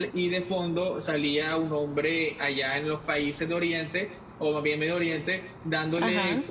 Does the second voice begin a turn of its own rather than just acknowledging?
No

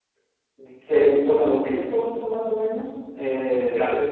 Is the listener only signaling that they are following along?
Yes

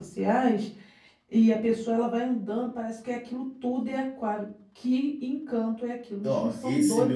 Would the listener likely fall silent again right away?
No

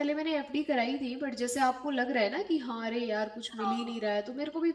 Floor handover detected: No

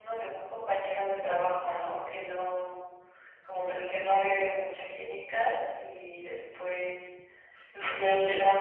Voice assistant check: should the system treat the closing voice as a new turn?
No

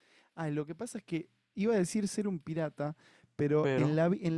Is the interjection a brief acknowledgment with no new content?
Yes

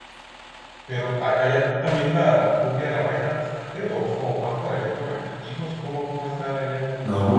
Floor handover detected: Yes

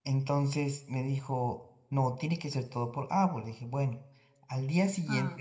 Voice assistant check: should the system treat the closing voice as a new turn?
No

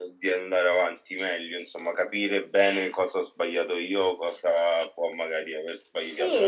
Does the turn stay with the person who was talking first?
No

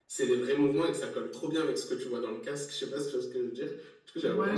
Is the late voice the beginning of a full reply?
Yes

